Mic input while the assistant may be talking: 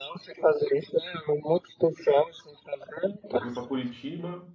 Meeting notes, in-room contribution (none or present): present